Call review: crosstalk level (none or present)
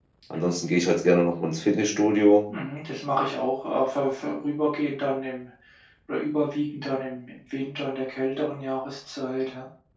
none